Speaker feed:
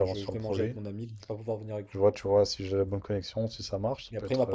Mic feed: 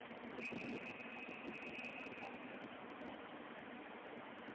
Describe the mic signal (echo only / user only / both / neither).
neither